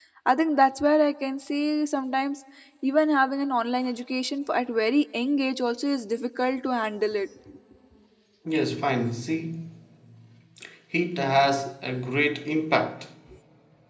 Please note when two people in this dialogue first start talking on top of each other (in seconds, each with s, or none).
none